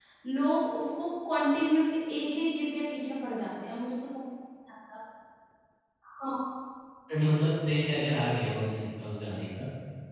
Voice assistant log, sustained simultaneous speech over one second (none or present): none